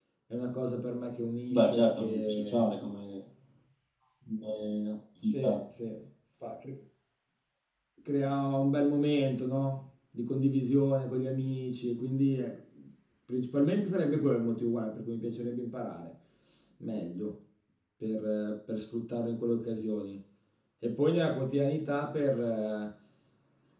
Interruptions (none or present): present